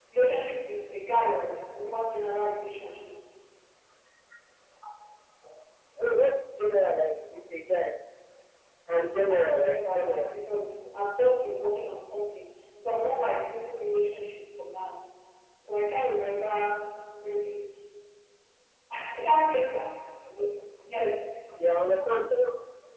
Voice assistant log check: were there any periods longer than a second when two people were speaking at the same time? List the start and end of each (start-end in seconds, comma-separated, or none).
9.1-10.4